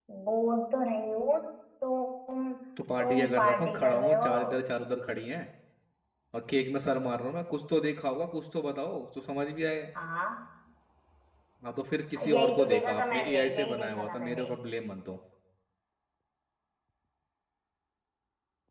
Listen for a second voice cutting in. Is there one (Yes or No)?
Yes